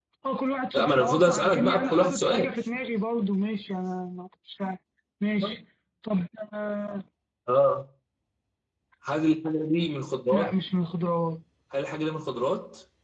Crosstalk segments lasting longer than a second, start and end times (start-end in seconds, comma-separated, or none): 0.8-2.5